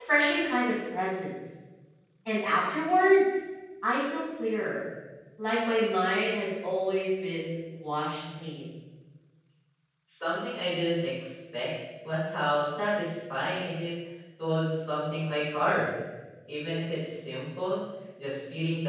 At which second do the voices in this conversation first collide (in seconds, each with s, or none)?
none